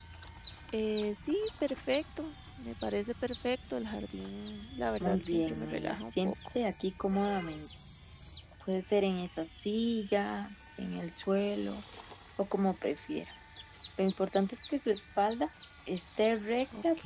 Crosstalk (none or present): present